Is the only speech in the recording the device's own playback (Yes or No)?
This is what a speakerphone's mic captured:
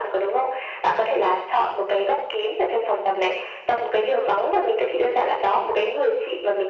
Yes